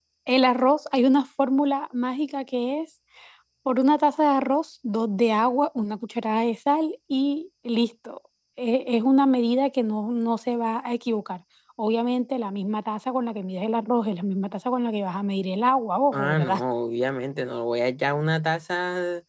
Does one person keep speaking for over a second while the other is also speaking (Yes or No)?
No